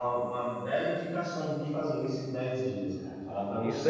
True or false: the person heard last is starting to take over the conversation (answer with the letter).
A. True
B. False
A